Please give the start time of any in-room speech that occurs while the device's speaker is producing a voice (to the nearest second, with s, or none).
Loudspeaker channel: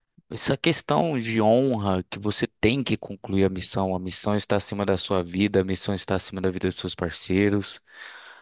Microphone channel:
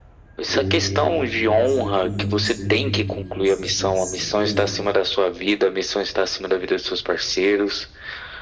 0 s